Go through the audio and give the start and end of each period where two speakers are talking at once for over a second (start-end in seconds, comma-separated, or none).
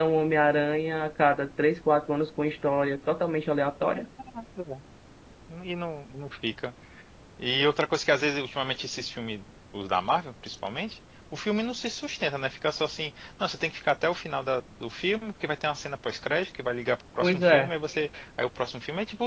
none